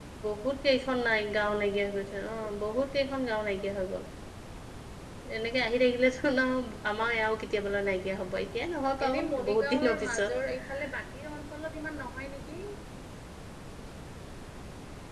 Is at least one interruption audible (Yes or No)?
Yes